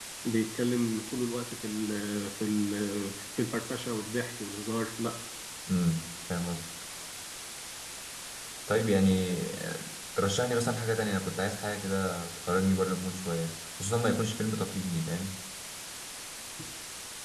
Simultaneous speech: No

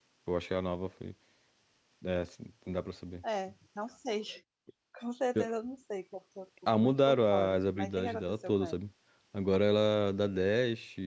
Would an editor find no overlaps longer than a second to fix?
No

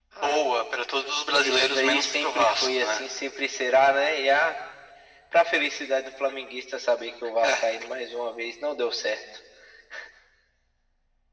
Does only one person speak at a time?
No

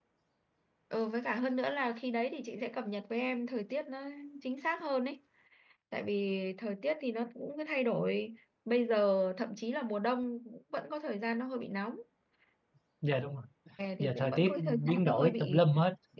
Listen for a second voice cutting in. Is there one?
Yes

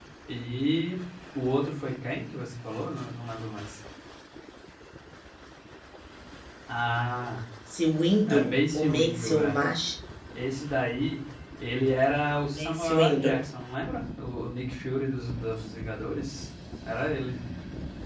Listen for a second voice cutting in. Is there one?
Yes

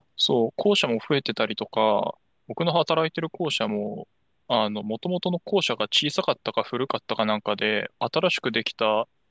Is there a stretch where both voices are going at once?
No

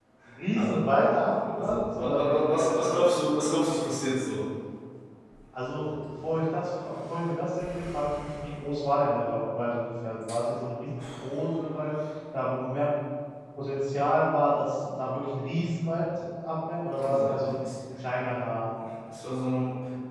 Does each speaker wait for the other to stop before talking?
No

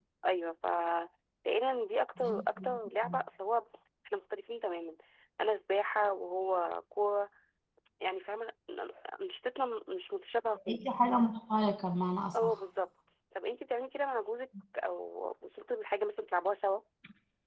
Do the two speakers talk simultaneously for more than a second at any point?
No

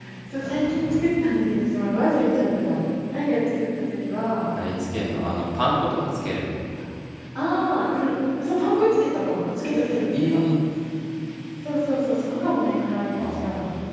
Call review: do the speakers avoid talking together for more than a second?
Yes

